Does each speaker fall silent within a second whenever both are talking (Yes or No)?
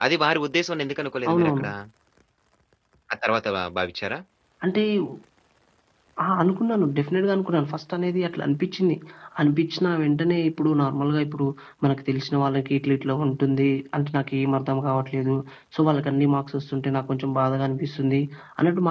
Yes